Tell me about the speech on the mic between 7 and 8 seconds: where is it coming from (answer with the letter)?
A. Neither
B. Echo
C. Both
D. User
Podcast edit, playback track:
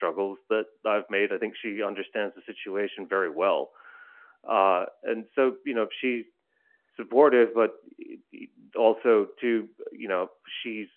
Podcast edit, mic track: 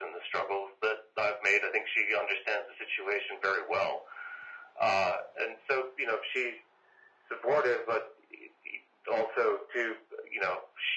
B